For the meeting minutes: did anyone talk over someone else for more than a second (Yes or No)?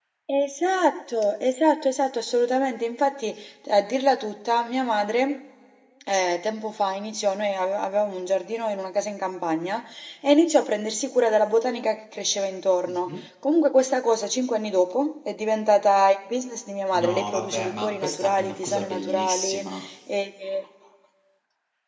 Yes